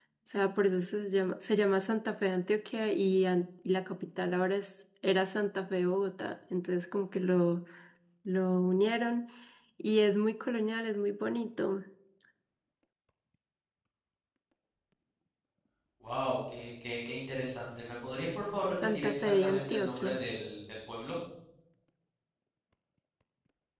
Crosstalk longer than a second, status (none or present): present